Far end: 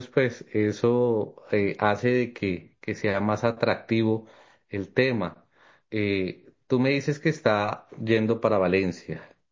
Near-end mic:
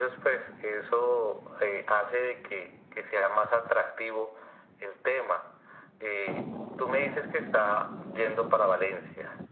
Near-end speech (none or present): none